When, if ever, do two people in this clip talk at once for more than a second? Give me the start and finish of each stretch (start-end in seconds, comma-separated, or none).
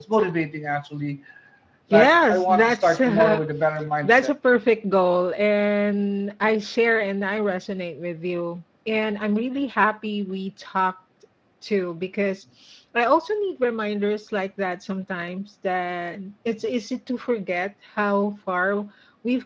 1.9-3.4